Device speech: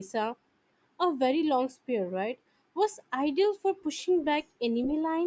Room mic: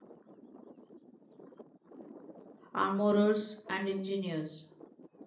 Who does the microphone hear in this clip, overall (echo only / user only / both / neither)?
user only